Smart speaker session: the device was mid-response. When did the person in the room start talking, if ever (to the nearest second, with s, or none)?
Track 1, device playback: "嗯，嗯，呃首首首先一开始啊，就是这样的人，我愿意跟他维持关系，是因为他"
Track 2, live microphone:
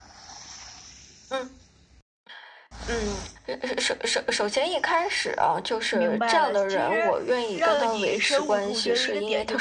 6 s